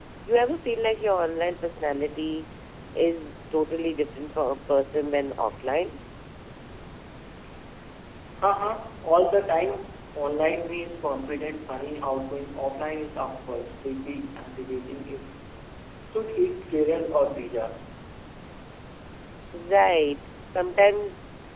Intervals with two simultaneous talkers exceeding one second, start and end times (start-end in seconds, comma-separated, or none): none